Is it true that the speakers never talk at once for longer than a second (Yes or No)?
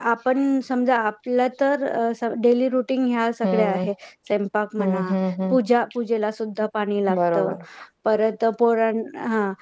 Yes